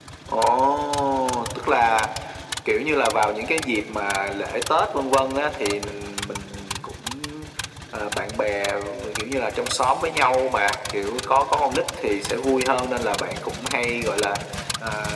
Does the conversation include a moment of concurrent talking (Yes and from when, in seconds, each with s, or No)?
No